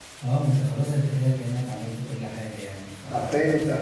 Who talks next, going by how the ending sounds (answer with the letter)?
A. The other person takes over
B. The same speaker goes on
A